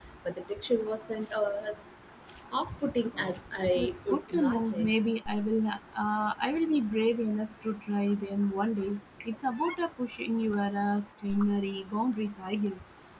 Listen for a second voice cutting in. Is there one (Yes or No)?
Yes